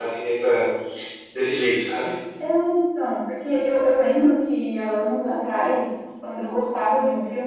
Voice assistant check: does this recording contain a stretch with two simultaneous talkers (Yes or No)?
No